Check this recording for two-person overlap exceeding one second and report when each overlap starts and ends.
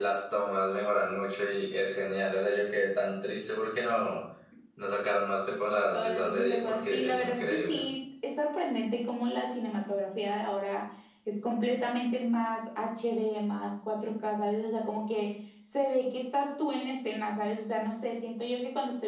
5.9-7.8

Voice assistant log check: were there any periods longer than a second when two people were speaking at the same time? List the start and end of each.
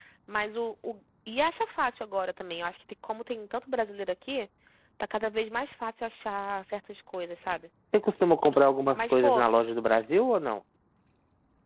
none

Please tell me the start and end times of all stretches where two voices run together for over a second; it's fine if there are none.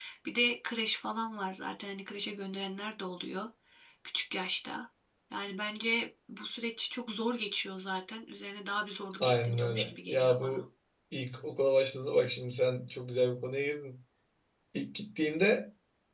9.2-10.6

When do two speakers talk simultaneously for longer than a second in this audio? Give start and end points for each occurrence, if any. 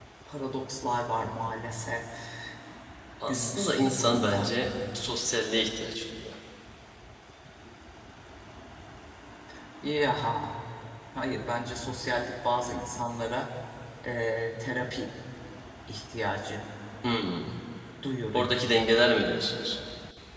3.3-4.5

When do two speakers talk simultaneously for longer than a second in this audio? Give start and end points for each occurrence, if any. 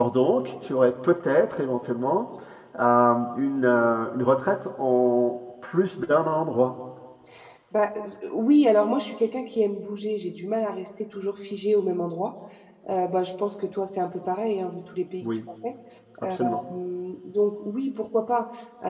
none

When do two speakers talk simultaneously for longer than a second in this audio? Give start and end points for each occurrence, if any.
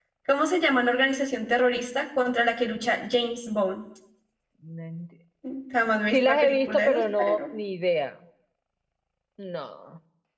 6.1-7.4

